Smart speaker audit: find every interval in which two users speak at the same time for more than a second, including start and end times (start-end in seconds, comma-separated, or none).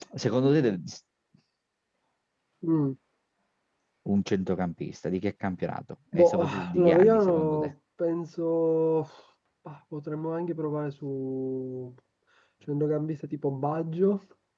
6.1-7.7